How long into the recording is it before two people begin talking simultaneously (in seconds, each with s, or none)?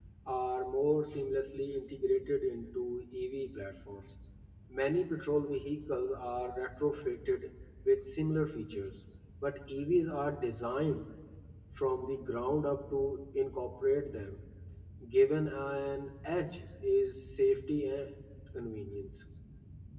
none